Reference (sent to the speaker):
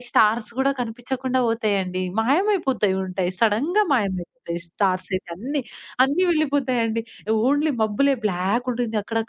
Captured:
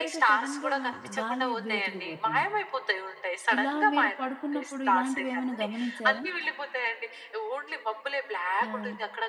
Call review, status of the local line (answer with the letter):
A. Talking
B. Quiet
A